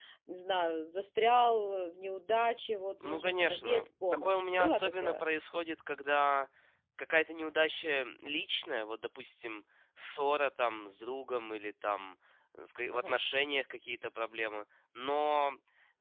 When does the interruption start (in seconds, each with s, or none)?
3.0 s